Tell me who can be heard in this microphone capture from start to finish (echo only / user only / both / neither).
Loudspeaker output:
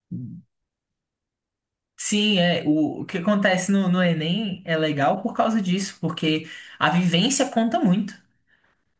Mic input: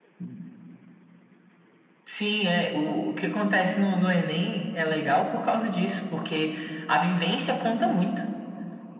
echo only